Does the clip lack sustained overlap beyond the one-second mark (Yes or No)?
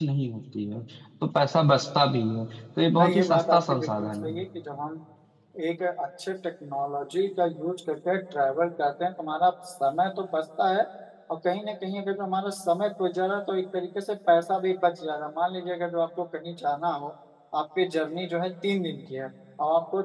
No